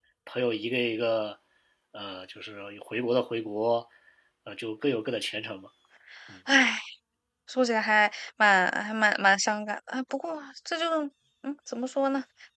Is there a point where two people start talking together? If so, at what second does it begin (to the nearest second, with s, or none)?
none